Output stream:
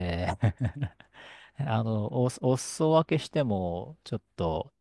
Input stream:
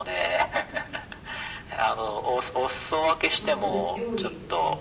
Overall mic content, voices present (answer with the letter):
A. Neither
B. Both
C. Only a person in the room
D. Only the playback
B